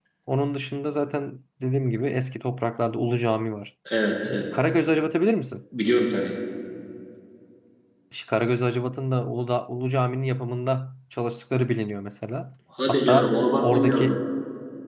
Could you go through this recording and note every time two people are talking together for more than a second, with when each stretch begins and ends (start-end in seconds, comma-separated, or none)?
12.9-14.2